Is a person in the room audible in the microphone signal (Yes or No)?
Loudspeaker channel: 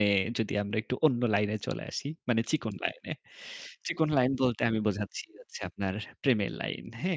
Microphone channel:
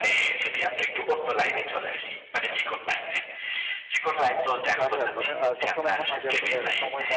Yes